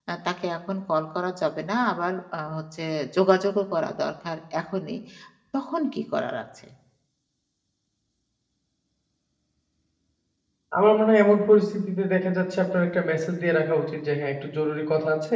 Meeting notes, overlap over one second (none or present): none